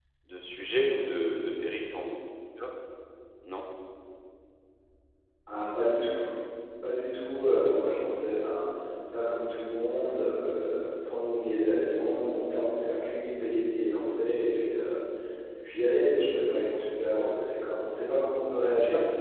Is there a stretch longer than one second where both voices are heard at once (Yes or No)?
No